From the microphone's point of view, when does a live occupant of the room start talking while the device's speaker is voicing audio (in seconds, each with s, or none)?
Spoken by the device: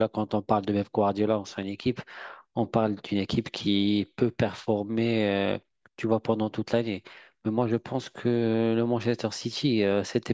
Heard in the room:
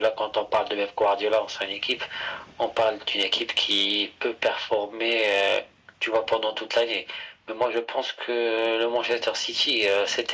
none